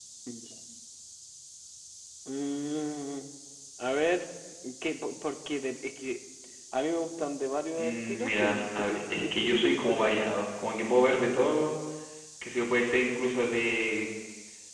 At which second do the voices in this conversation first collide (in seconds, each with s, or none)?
7.8 s